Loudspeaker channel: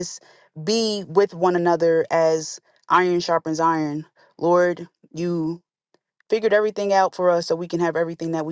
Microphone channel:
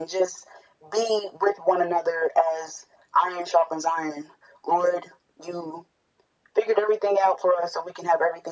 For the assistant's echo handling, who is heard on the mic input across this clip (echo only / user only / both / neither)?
echo only